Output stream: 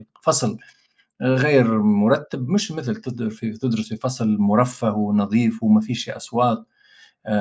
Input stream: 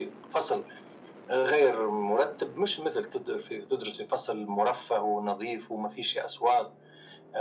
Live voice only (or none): none